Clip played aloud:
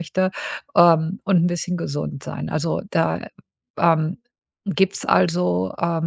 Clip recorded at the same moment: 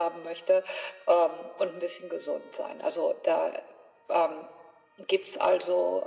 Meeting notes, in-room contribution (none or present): none